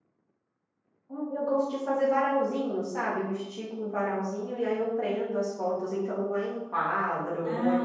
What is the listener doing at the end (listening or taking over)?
taking over